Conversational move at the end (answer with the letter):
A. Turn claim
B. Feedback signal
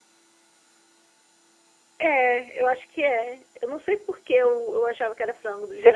A